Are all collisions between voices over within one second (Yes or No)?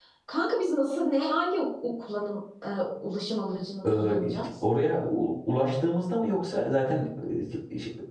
Yes